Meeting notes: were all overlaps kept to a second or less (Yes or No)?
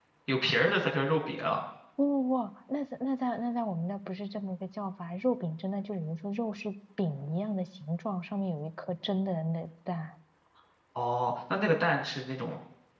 Yes